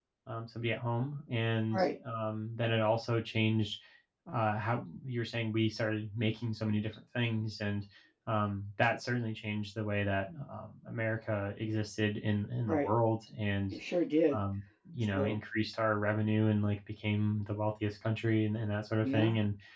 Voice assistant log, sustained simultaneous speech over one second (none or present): none